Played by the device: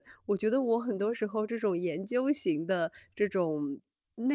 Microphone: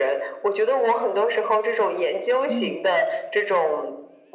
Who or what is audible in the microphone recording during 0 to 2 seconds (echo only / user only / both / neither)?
echo only